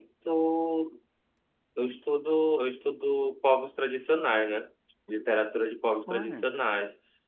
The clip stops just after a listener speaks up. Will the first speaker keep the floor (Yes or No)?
Yes